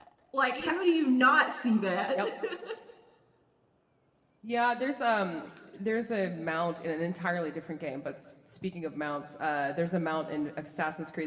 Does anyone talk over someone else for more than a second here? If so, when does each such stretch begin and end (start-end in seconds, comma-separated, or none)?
none